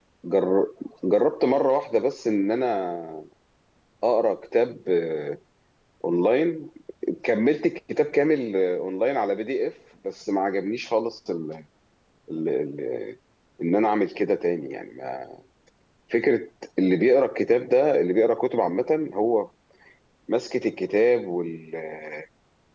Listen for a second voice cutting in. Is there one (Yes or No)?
No